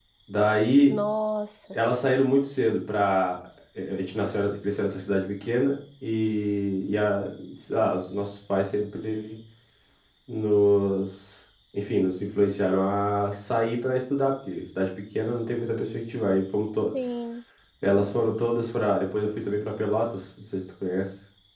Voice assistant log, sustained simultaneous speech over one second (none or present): none